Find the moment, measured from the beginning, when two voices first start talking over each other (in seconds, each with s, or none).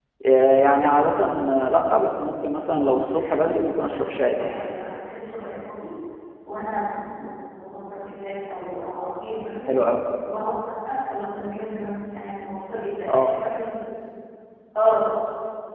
2.7 s